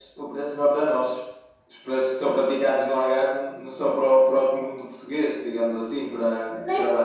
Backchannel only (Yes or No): No